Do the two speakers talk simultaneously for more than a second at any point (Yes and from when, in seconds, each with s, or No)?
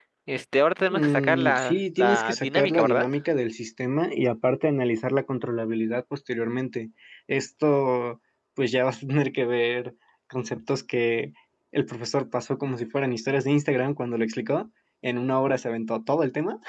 Yes, from 0.9 s